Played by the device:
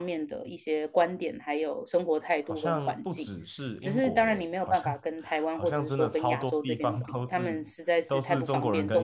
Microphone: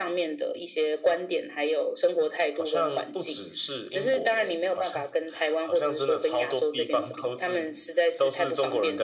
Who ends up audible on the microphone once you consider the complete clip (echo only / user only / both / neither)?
echo only